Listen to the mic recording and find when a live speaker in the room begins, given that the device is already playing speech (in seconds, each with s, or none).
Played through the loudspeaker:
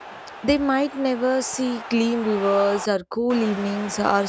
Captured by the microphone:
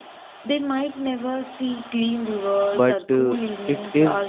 2.7 s